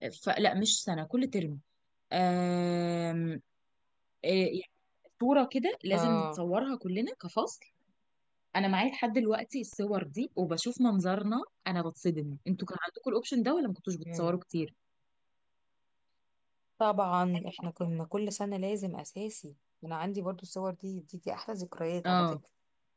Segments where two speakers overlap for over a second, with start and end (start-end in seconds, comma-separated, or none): none